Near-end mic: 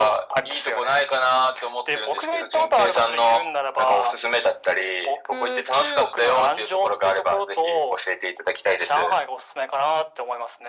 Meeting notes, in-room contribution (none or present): none